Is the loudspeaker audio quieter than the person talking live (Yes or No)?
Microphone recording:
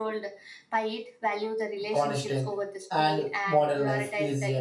Yes